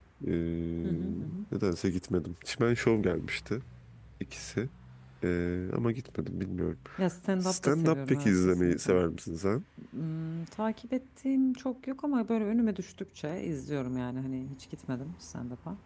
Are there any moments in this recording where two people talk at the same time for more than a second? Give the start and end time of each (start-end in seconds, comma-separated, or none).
7.4-9.0